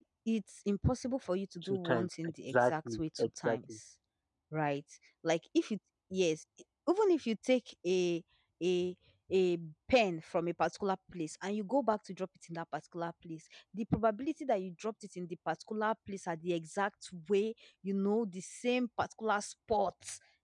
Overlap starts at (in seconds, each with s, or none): 1.6 s